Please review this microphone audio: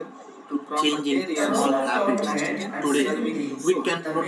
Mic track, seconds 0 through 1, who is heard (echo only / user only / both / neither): echo only